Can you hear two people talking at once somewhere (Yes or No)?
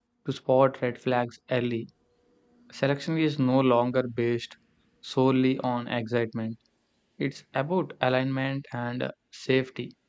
No